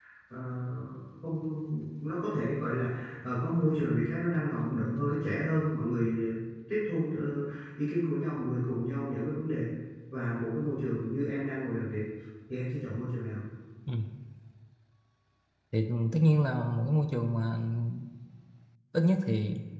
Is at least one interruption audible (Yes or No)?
No